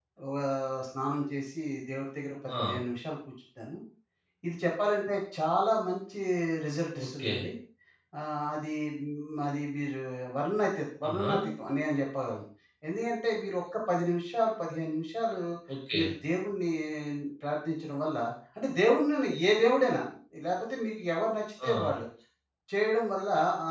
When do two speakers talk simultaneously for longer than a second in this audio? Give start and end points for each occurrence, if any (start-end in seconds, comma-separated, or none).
none